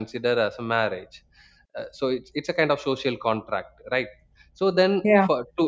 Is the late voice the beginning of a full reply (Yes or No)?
No